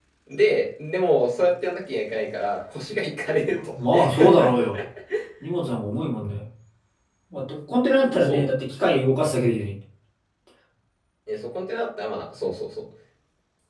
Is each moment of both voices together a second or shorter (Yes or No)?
Yes